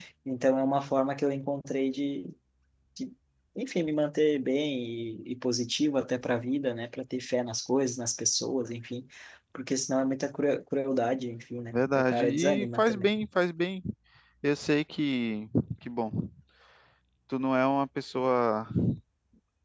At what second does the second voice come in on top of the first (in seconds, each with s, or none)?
11.7 s